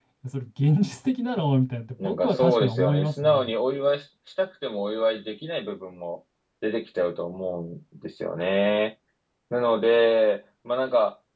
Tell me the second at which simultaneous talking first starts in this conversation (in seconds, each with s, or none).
2.0 s